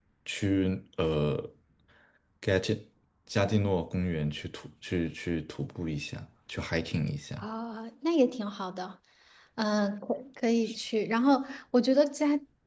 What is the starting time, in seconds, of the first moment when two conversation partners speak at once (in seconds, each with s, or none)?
none